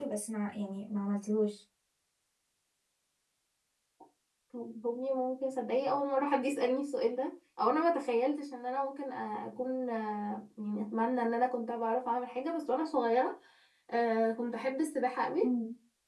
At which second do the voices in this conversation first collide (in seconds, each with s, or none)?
none